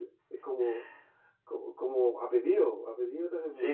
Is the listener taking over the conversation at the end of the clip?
Yes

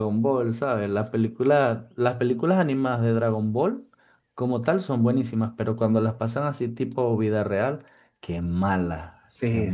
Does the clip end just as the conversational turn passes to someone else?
Yes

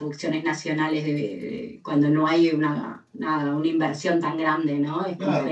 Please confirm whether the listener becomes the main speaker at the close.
Yes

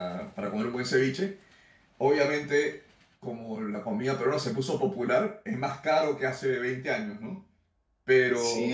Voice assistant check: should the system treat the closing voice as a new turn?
Yes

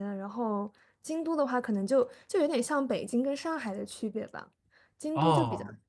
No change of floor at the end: Yes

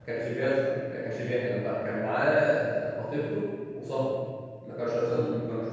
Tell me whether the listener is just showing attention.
Yes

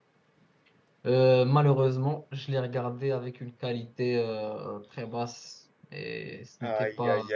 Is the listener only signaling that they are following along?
No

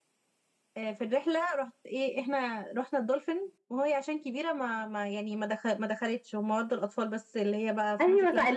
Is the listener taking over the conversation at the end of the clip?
Yes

